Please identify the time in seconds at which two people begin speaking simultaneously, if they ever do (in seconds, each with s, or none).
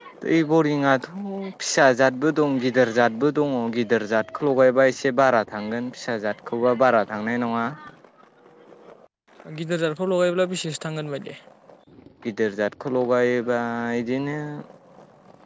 none